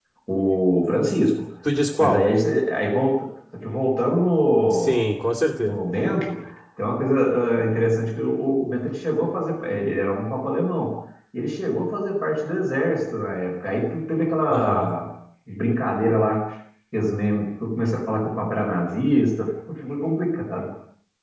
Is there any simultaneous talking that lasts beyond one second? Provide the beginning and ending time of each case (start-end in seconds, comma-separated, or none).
none